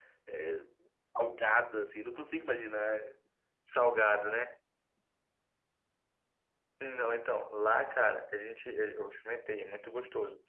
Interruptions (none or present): none